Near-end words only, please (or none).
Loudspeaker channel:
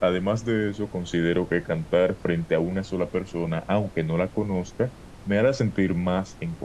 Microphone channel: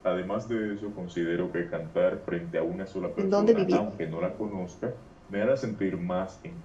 sin dónde vivir.